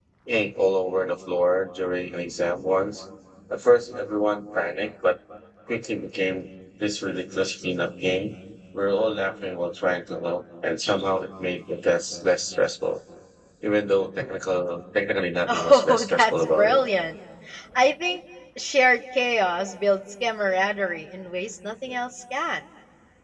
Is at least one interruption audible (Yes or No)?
Yes